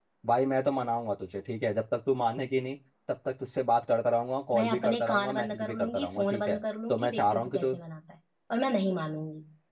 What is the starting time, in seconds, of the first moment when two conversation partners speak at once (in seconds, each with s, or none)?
4.5 s